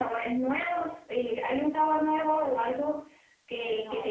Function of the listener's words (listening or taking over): listening